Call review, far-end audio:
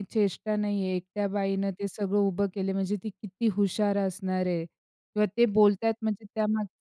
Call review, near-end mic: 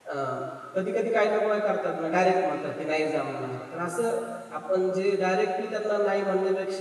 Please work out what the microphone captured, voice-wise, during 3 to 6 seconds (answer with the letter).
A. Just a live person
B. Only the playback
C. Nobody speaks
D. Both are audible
A